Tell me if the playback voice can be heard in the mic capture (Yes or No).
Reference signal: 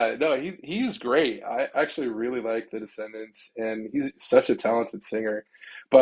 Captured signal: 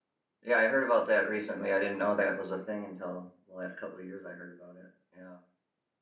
No